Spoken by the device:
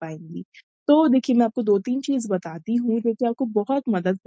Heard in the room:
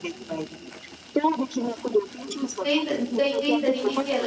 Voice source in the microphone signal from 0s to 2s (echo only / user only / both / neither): echo only